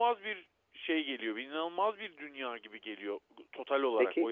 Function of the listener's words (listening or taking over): taking over